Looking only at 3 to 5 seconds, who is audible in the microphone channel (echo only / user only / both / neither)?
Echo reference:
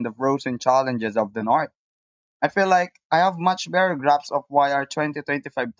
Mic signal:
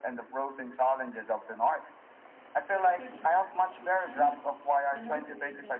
both